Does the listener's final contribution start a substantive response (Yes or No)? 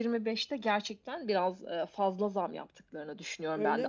No